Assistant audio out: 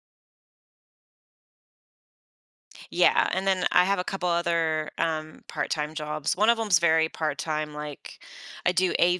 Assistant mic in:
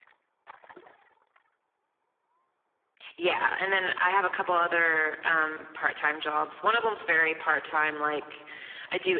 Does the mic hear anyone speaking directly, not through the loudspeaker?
No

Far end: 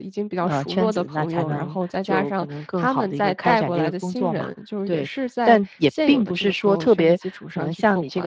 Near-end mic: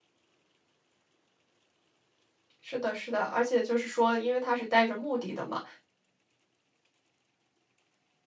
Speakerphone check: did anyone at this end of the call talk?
Yes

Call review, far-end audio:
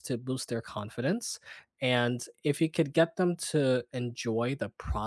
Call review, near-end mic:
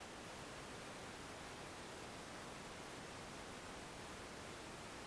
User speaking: No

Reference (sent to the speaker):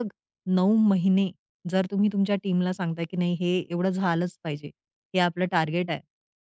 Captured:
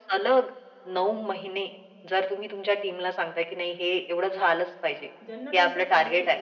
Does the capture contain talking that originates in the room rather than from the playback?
Yes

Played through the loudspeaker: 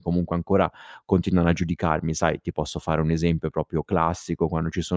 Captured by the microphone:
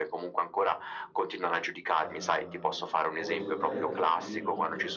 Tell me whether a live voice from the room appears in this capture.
Yes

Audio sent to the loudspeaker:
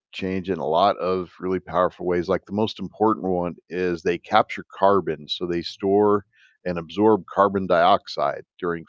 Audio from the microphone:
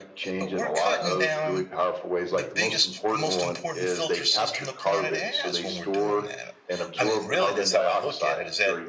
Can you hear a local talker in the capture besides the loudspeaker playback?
Yes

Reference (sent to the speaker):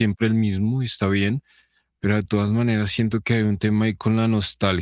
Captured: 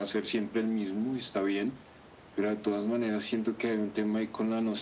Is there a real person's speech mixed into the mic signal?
No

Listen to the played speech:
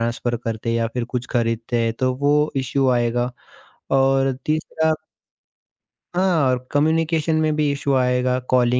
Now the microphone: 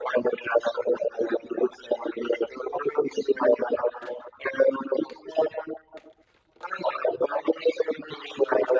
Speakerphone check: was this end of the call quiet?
Yes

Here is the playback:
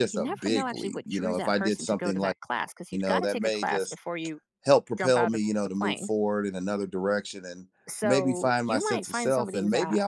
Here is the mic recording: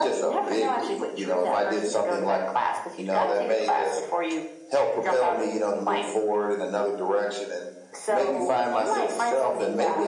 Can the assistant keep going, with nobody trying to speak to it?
Yes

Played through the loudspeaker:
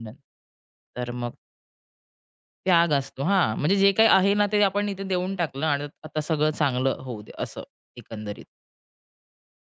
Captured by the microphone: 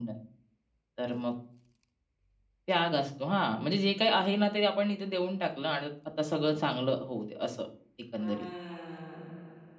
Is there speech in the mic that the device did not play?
Yes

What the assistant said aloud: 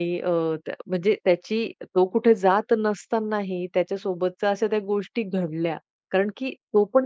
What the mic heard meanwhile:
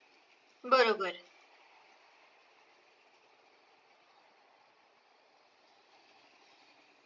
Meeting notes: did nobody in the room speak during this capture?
No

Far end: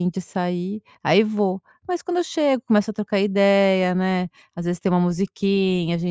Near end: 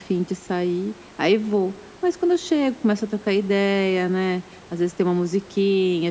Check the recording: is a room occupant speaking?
No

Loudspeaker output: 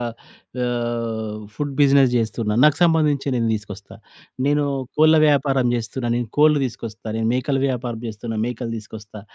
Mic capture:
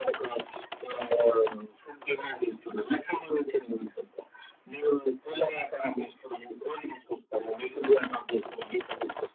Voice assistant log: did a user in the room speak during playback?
No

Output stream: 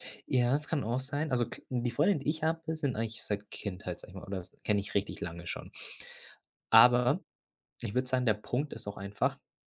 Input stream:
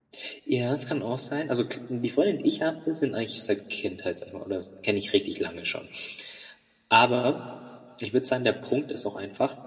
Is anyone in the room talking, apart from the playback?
No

